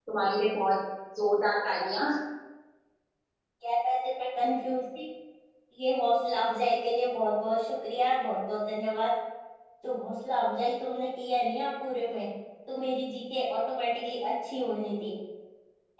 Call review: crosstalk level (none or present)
none